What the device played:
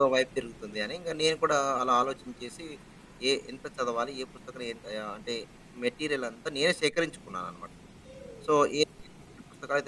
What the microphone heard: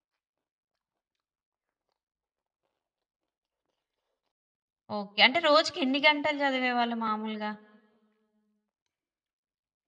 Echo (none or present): none